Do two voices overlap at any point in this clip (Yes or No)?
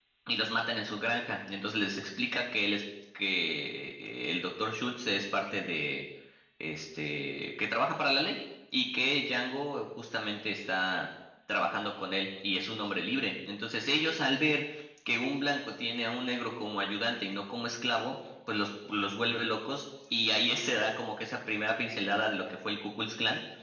No